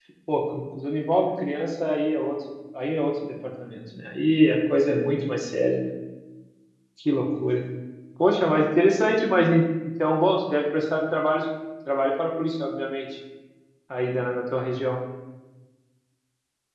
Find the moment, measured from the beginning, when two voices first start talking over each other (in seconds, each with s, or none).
none